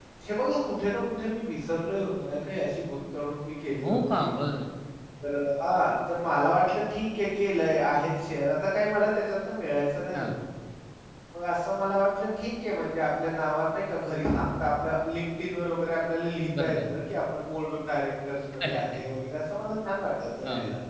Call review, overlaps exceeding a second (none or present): none